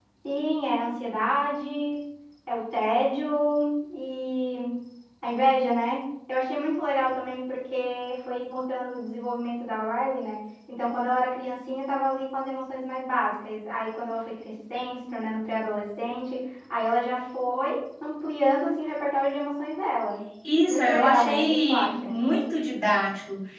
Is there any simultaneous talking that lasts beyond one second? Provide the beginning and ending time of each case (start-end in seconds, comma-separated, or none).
20.7-22.1